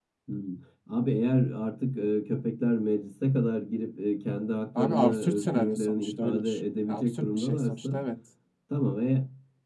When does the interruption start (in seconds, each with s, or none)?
4.8 s